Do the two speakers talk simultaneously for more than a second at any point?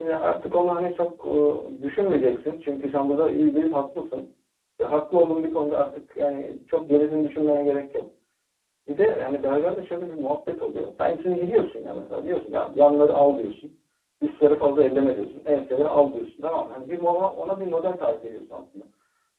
No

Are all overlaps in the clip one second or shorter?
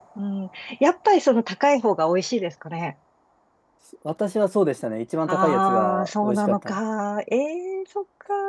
No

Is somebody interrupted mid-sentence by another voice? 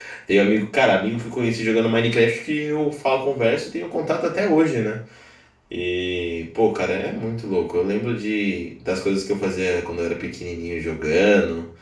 No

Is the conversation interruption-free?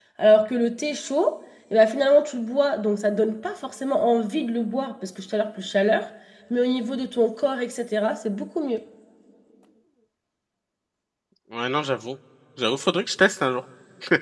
Yes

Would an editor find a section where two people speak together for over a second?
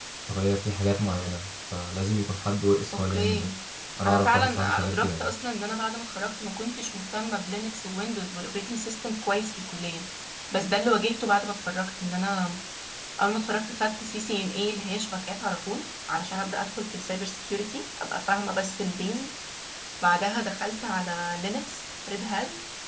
Yes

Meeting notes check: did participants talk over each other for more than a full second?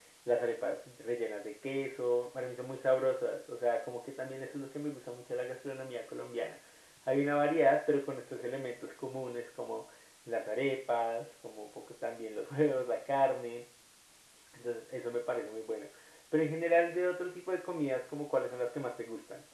No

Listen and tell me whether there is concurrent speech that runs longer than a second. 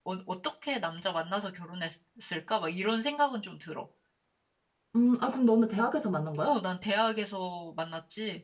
No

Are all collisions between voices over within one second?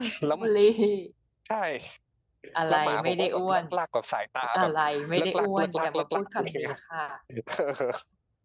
No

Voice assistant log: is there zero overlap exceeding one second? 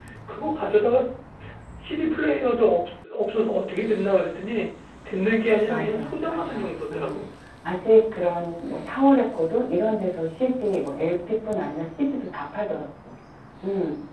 No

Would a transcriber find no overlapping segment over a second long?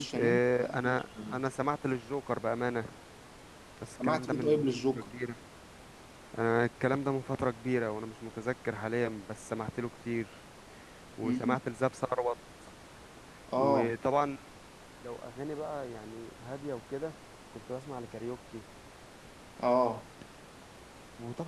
No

